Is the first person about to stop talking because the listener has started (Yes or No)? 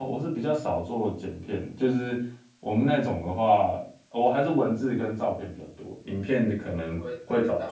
Yes